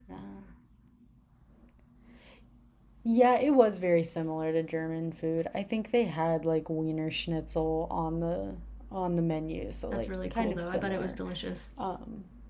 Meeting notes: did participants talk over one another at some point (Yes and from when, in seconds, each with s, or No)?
Yes, from 9.9 s